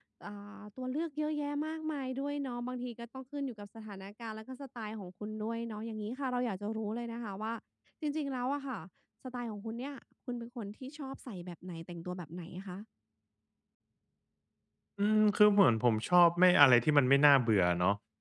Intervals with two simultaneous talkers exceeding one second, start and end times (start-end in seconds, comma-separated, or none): none